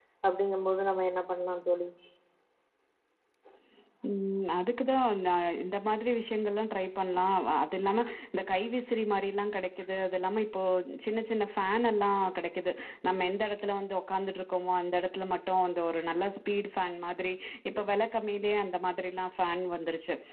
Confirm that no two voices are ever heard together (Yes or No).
Yes